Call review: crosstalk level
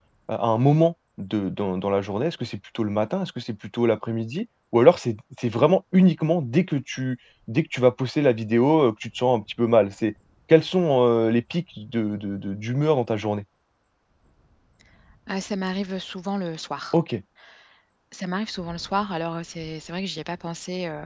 none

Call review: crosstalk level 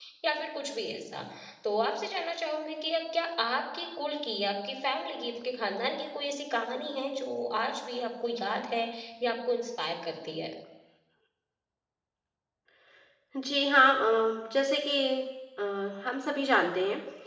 none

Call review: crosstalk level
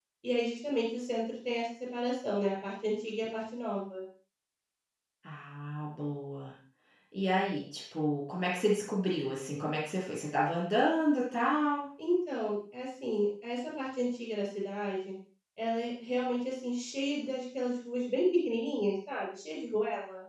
none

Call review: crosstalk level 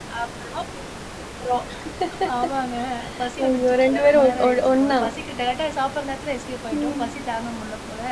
present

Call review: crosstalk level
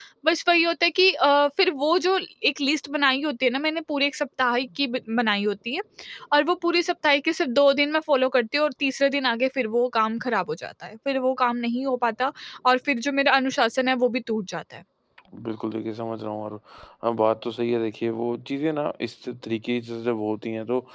none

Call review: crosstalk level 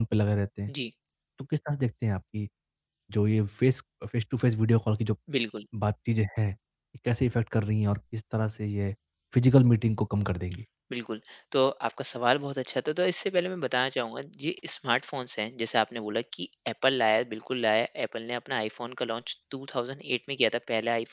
none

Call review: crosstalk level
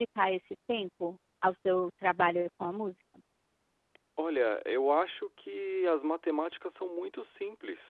none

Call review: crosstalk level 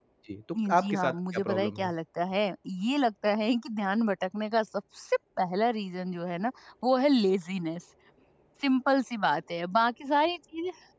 present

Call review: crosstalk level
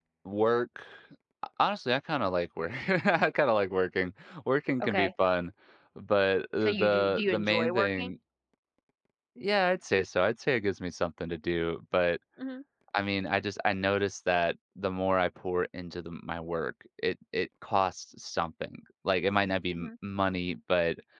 present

